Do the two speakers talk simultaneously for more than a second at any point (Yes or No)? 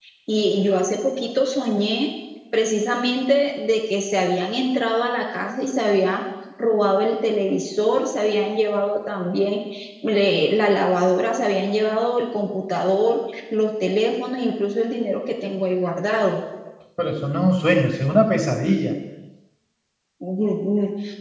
No